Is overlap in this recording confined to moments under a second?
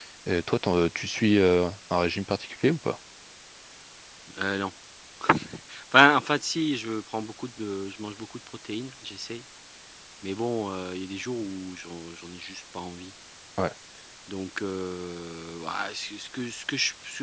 Yes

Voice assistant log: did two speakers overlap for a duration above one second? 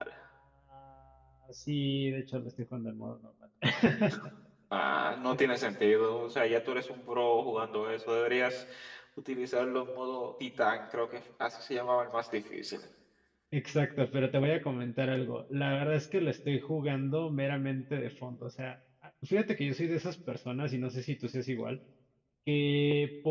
No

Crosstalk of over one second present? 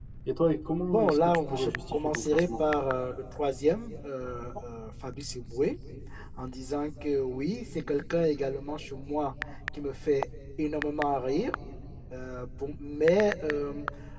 Yes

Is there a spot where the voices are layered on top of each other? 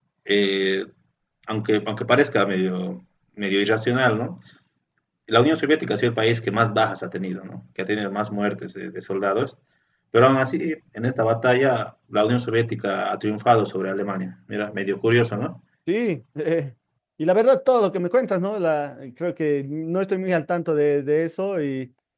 No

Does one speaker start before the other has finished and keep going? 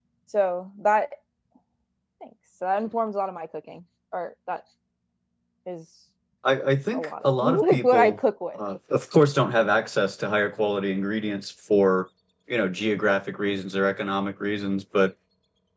Yes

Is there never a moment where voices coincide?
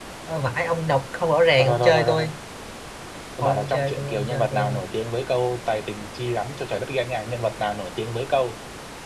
No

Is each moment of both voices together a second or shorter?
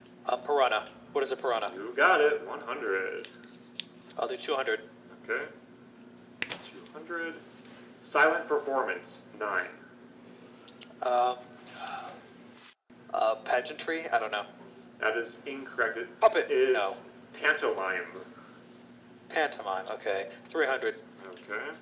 Yes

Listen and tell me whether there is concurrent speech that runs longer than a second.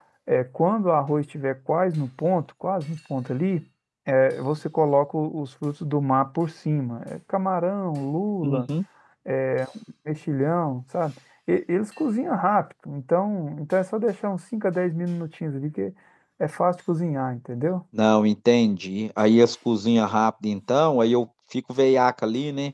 No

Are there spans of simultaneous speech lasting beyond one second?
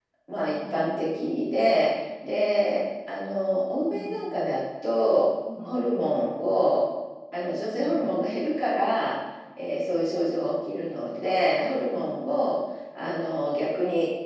No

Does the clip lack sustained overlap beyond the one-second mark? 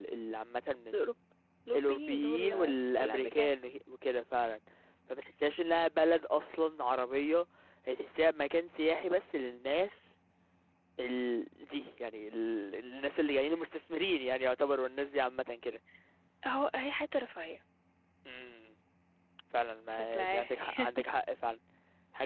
No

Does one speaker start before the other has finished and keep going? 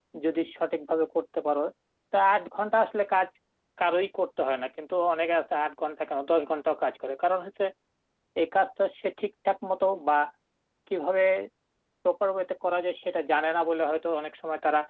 No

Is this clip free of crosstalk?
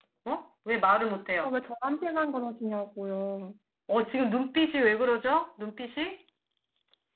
Yes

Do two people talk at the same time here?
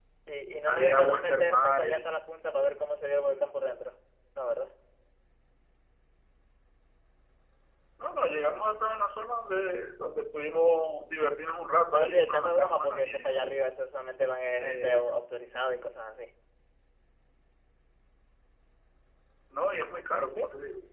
Yes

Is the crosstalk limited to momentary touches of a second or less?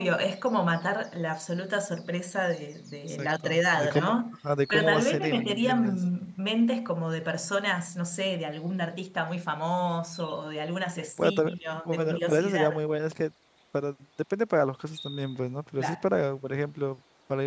No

